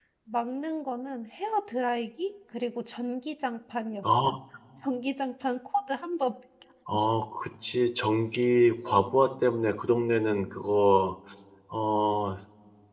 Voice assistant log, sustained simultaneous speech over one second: none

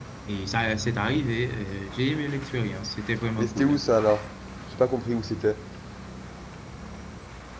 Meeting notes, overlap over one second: none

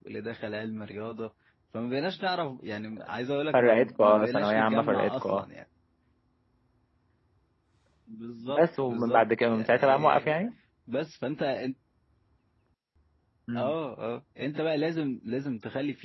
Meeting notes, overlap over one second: present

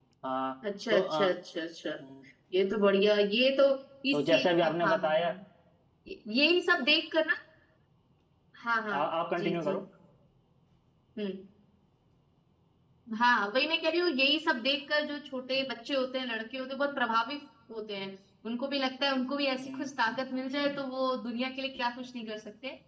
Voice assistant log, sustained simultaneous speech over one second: present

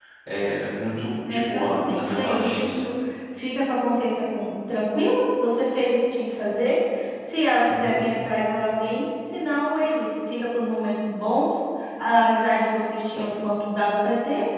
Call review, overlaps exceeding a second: present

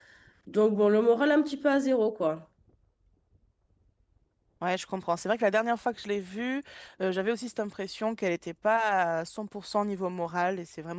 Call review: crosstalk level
none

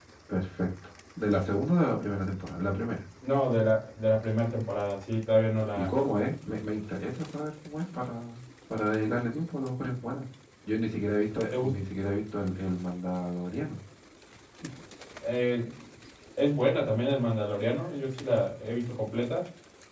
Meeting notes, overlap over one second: none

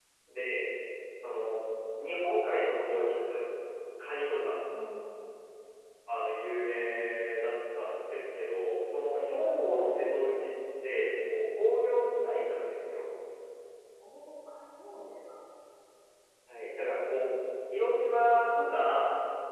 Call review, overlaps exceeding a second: none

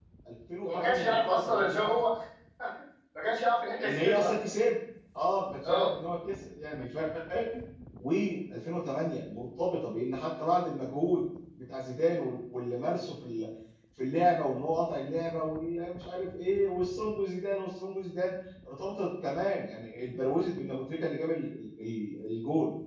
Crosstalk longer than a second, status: present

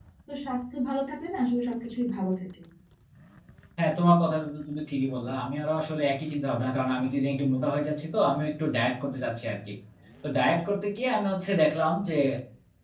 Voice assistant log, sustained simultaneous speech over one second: none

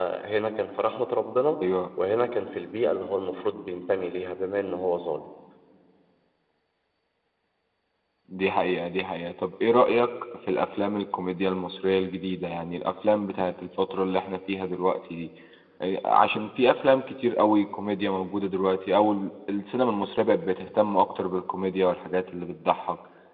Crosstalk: none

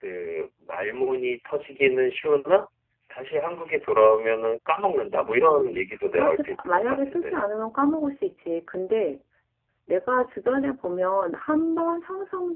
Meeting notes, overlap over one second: present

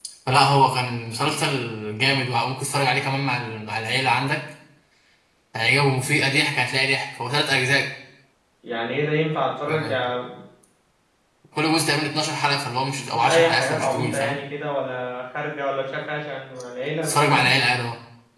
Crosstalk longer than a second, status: present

